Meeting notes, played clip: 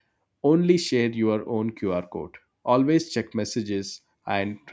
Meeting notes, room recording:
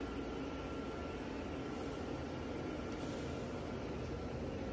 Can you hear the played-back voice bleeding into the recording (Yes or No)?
No